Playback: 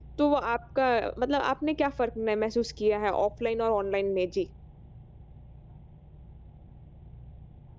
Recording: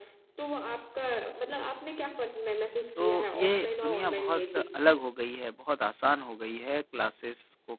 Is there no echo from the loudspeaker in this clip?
No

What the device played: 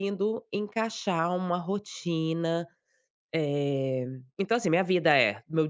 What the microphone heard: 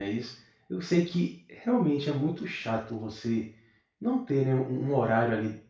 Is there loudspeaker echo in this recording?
No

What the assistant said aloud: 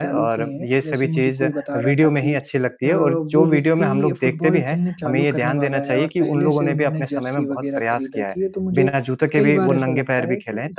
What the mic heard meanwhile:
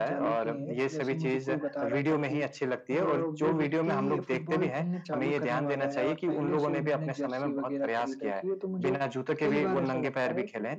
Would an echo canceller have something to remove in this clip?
Yes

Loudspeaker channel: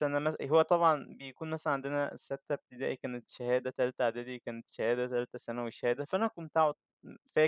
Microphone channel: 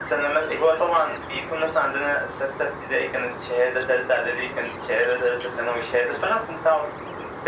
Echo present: Yes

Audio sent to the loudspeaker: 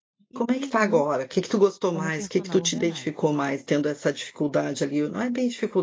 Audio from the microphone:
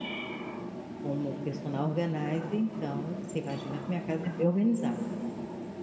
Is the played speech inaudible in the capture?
Yes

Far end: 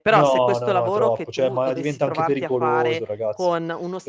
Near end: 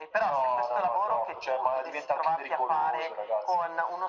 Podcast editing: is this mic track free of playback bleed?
No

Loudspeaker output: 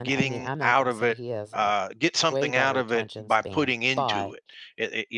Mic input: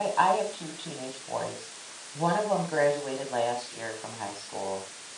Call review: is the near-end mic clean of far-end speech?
Yes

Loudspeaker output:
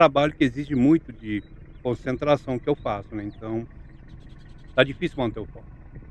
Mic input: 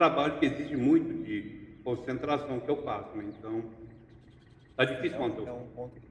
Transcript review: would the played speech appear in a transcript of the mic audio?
Yes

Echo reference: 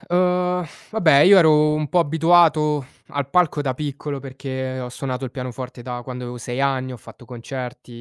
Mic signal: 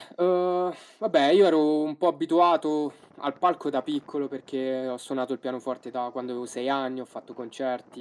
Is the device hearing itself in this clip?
Yes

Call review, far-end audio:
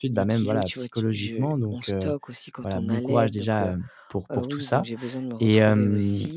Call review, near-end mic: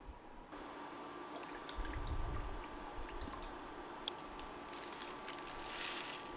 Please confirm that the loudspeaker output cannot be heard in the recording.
Yes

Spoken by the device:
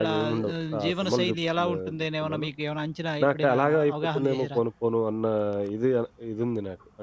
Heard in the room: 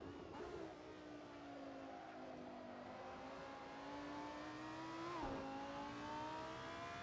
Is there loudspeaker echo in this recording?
No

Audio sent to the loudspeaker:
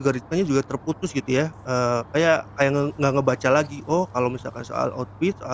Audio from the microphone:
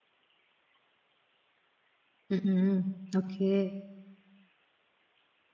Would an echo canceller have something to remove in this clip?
No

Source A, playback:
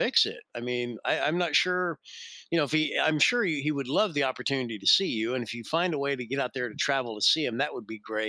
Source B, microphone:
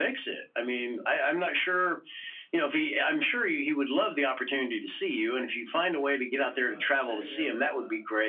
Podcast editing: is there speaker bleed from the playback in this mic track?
Yes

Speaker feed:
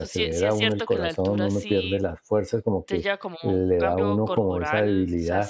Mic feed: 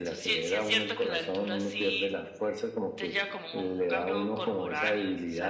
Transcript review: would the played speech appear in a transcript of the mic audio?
Yes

